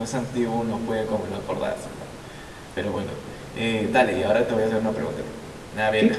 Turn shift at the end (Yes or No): No